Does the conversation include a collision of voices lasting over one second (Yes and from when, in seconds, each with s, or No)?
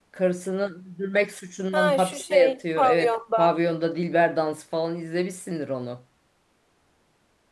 Yes, from 1.7 s